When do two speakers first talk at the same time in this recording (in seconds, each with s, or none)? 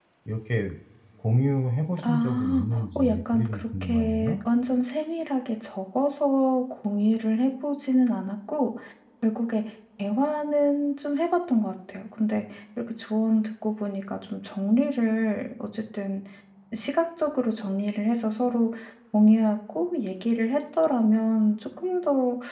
2.1 s